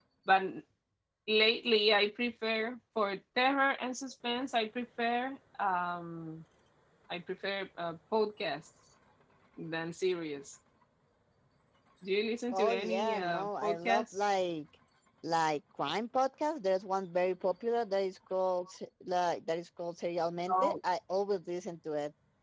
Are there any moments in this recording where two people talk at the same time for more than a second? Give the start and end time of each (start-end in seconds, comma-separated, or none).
12.5-14.2